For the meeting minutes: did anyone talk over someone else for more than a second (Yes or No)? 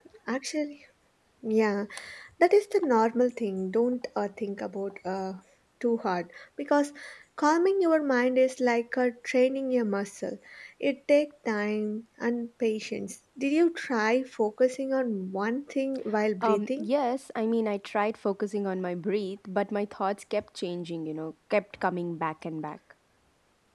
No